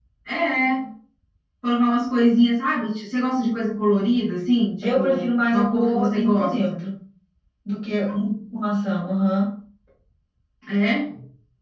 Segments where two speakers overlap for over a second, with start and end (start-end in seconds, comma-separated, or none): 4.8-6.7